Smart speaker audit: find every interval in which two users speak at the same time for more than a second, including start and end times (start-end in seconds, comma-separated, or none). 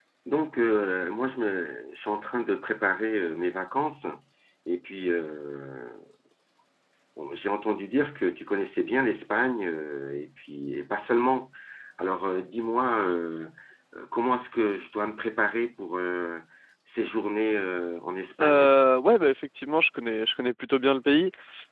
none